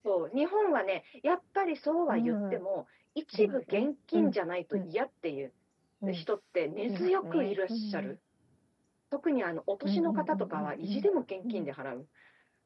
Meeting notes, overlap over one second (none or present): present